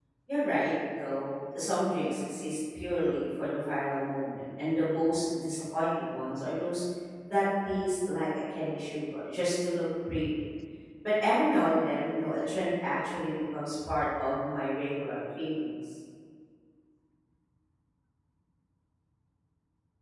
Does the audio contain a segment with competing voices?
No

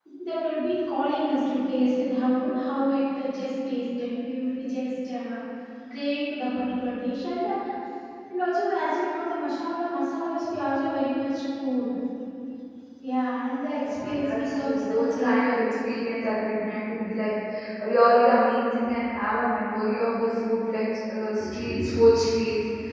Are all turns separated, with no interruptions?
No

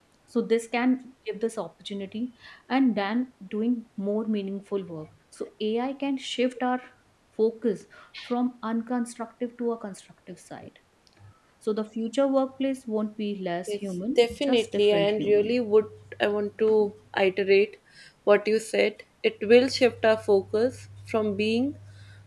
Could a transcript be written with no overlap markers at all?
No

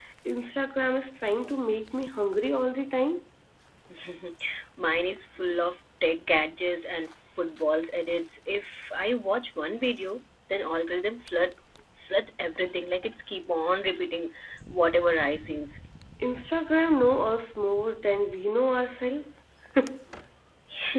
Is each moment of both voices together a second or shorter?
Yes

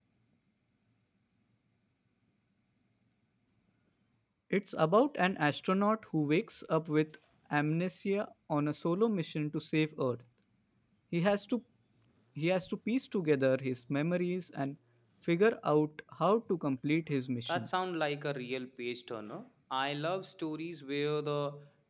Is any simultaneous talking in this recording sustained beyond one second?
No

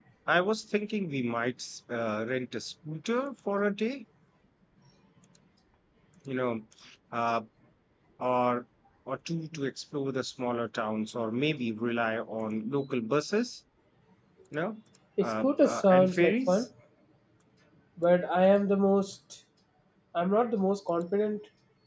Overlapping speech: Yes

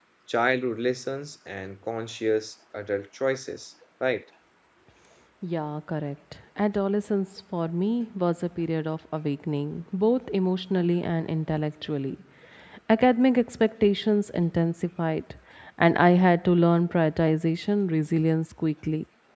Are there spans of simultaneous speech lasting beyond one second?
No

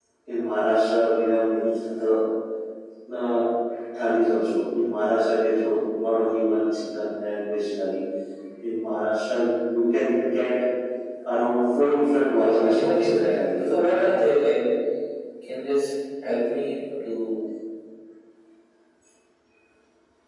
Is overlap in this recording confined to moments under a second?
No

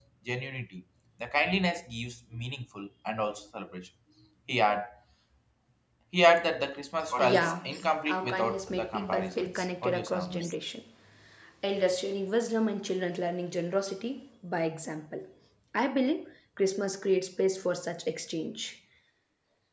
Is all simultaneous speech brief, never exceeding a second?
No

